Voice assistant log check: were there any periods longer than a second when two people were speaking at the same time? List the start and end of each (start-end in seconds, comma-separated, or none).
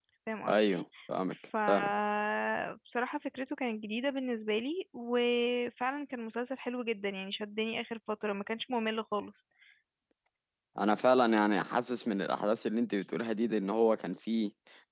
none